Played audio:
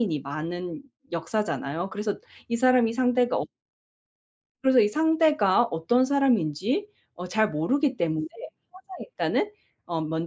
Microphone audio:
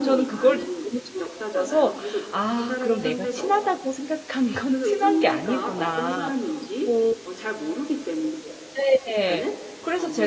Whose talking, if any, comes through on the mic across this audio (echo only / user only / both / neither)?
both